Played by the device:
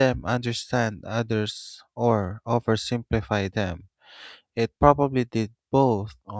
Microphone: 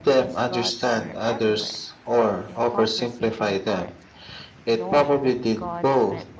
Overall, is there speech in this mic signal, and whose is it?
both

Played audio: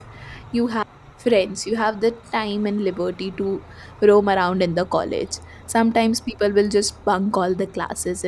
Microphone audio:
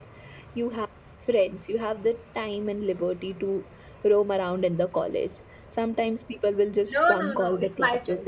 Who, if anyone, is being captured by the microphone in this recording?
both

